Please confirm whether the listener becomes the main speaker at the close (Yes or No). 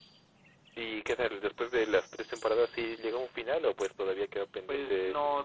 Yes